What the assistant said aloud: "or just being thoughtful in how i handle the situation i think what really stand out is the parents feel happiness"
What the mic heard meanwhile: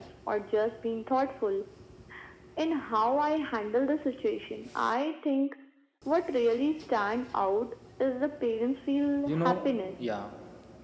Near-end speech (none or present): present